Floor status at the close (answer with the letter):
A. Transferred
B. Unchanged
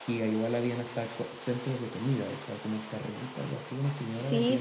A